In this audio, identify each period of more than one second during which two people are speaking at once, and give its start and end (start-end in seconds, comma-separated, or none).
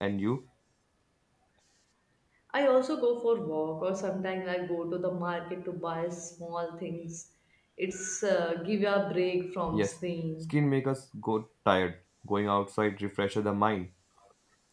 none